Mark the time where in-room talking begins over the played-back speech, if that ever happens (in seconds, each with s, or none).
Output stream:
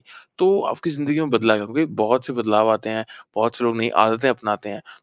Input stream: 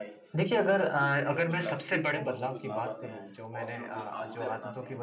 0.3 s